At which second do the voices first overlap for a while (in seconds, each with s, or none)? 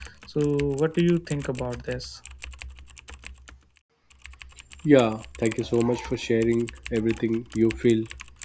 none